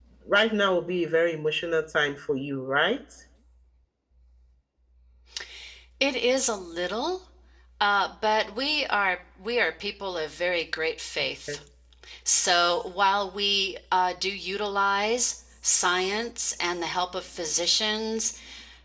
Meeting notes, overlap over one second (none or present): none